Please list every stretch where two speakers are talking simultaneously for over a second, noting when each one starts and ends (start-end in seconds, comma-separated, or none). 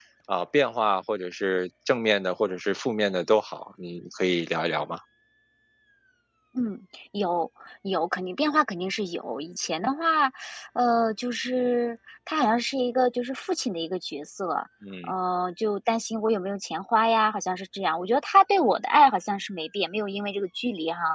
none